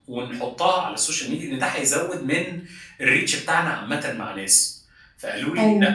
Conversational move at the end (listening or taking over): listening